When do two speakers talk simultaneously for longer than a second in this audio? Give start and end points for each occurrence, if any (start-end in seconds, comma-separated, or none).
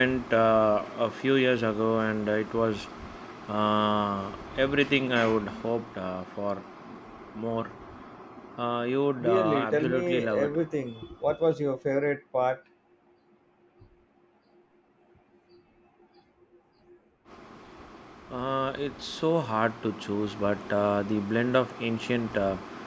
9.2-10.5